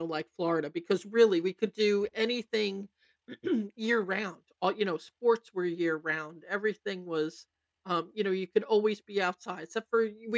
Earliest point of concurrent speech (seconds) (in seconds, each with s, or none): none